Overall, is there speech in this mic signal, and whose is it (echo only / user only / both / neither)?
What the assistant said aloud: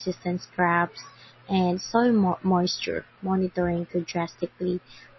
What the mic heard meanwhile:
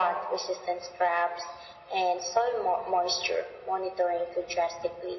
echo only